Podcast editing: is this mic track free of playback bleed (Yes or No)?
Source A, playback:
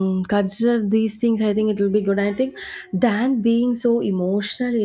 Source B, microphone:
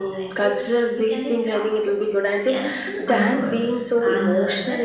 No